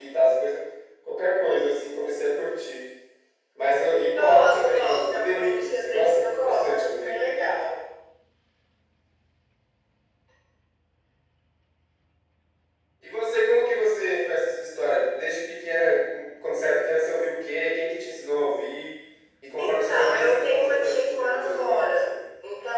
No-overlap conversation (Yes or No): No